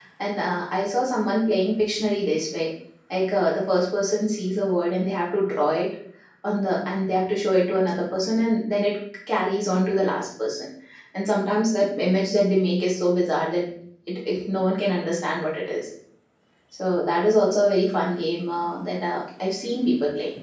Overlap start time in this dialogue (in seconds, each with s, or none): none